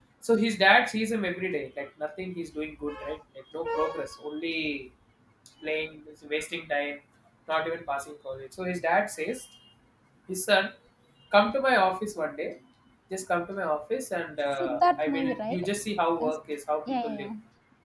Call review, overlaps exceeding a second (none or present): present